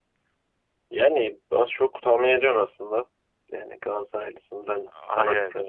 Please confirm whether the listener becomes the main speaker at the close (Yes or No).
No